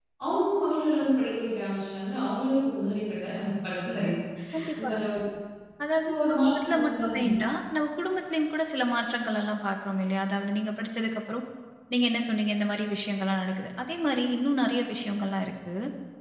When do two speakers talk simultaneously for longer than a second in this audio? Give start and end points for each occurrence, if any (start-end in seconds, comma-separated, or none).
6.1-7.3